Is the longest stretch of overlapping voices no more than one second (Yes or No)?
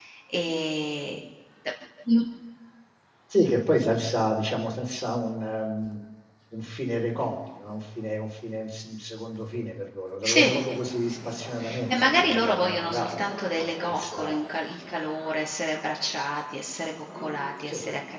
No